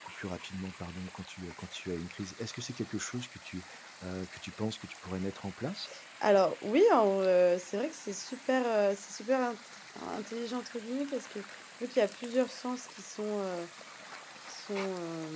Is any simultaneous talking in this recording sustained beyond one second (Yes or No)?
No